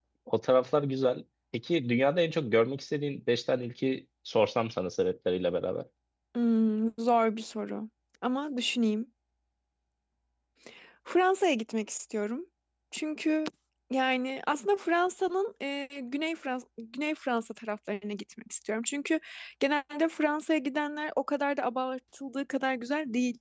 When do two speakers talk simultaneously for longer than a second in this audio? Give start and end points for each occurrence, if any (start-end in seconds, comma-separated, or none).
none